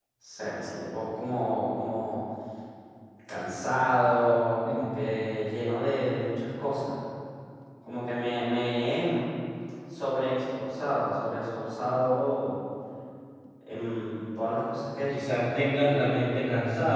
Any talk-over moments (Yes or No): Yes